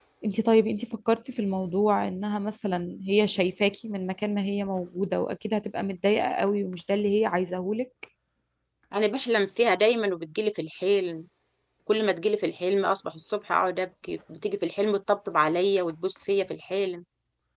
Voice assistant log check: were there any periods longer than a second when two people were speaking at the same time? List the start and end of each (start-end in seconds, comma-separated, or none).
none